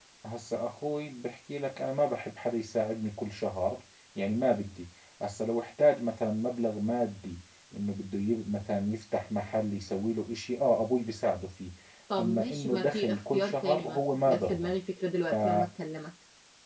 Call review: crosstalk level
present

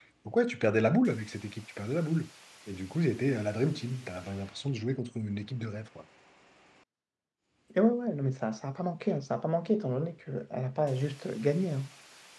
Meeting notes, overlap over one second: none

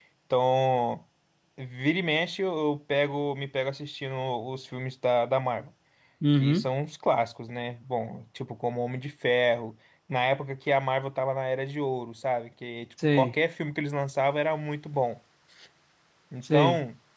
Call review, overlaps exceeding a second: none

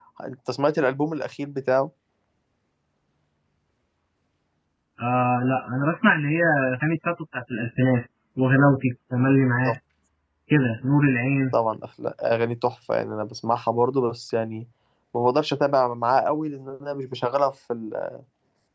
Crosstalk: none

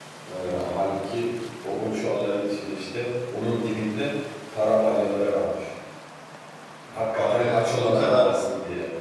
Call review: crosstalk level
present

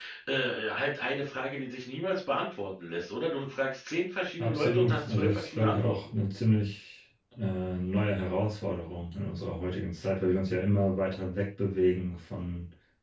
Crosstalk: present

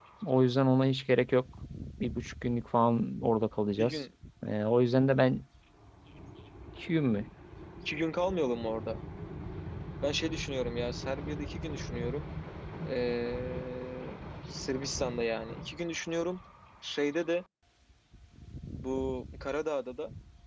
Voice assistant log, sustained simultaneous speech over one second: none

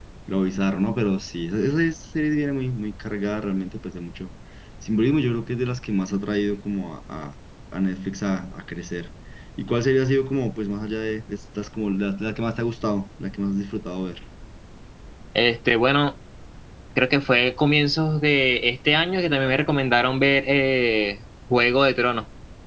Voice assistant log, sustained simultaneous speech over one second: none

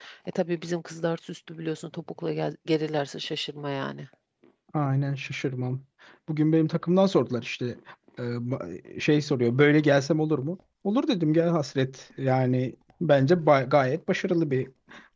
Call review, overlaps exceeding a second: none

